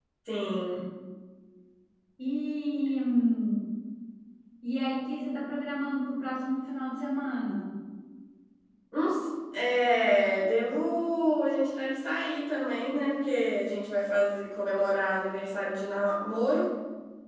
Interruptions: none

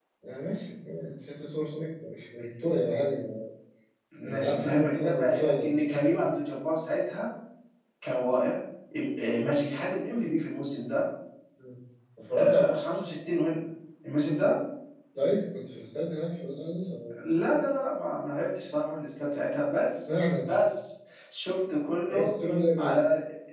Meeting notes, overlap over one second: present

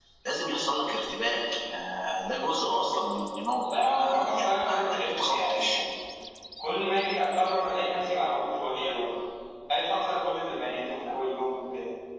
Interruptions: present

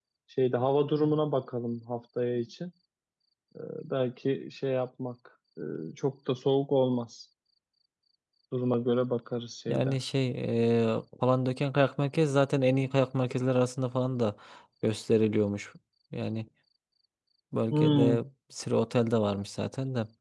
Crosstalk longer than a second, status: none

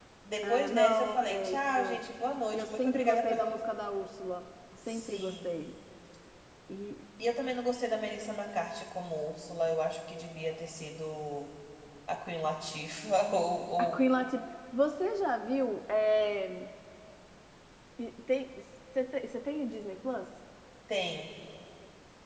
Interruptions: present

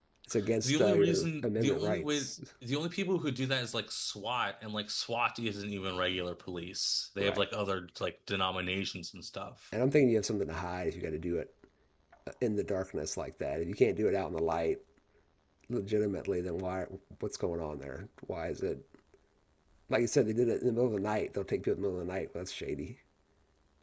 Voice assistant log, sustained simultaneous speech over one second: present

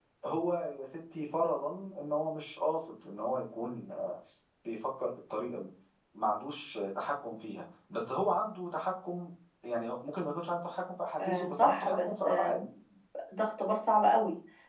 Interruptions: present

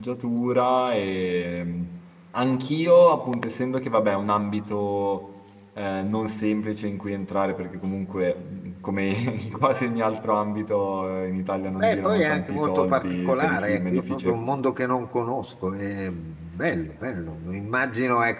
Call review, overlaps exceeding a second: present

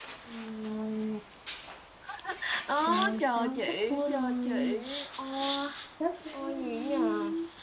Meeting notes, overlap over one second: present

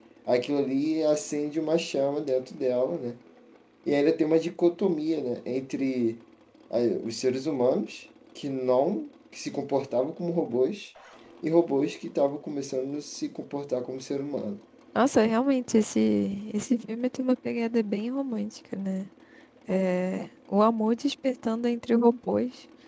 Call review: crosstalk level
none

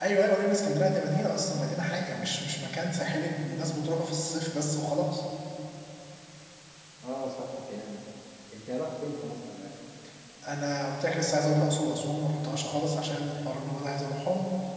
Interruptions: none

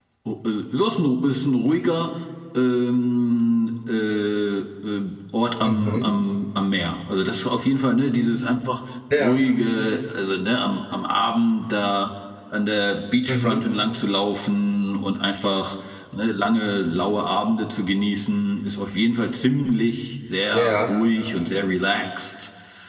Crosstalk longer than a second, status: none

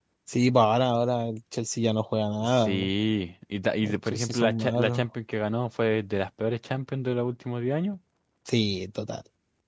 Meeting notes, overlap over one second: present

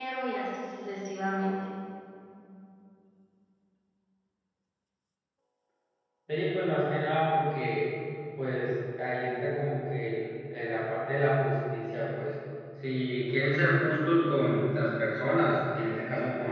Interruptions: none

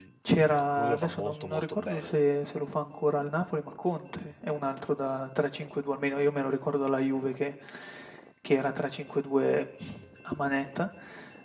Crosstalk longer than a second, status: present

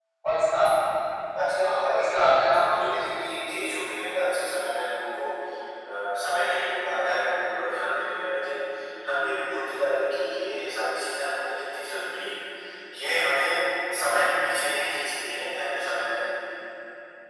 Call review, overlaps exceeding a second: present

